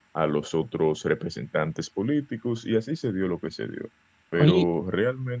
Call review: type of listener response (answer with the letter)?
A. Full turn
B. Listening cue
B